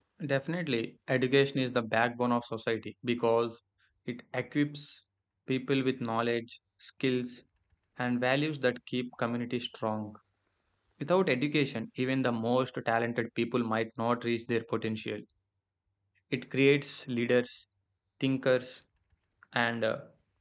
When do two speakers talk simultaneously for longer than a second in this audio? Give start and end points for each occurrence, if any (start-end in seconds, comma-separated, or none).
none